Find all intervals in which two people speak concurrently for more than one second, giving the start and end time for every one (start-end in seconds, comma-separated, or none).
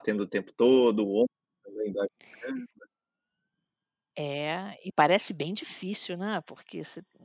none